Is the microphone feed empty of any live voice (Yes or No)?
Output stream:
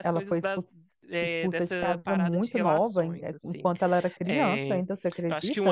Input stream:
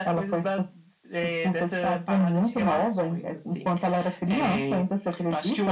Yes